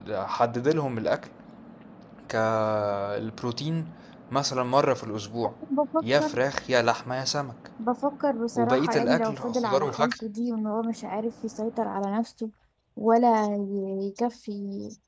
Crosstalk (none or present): present